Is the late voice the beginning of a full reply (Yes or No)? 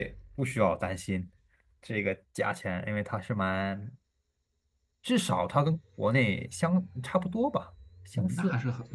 Yes